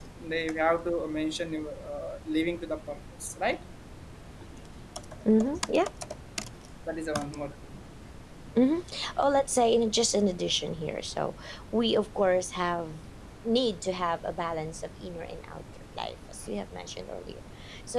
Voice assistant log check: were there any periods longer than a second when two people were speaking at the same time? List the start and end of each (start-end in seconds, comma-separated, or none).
none